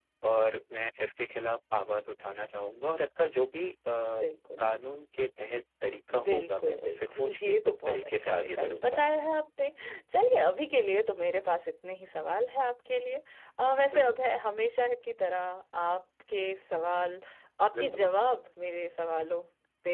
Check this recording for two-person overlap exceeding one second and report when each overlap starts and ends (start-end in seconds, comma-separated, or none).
6.2-9.0